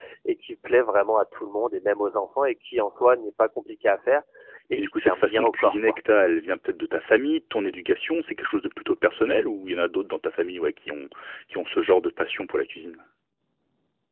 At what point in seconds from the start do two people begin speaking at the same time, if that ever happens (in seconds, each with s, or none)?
4.8 s